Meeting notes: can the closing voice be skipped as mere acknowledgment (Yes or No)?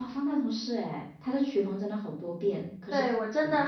No